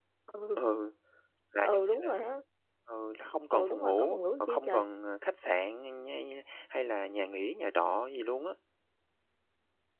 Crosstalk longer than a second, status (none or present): present